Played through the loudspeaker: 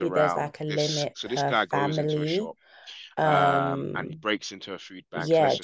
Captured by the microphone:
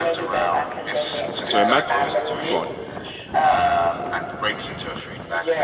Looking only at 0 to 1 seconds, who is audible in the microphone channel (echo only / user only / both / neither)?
echo only